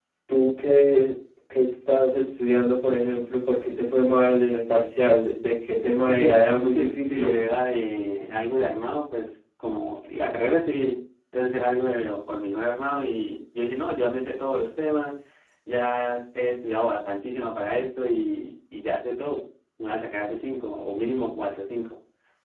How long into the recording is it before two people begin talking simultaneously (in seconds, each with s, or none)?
6.1 s